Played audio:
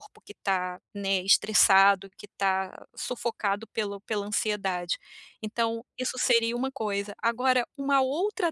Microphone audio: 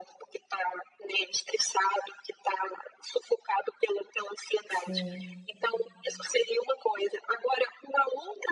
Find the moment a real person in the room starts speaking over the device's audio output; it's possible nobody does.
4.7 s

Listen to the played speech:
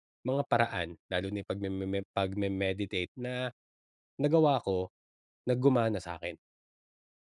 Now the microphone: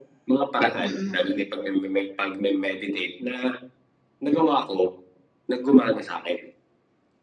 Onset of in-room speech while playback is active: 0.8 s

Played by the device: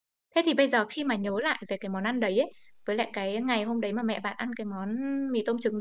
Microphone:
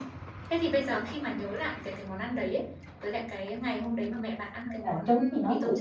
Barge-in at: 4.7 s

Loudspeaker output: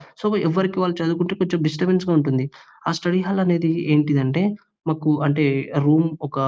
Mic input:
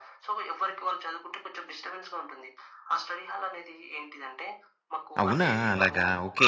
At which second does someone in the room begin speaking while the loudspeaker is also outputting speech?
5.2 s

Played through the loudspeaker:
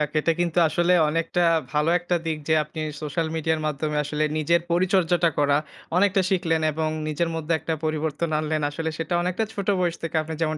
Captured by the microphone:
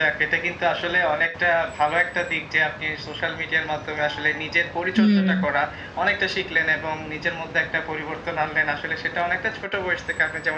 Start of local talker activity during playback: 5.0 s

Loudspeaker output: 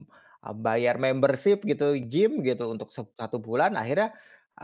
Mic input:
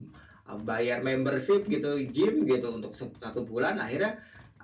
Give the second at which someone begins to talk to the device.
none

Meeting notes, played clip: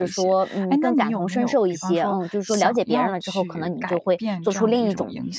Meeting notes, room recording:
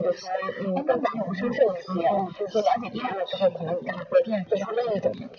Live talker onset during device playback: none

